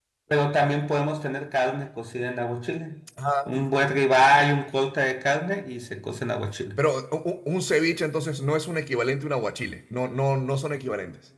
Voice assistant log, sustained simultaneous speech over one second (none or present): none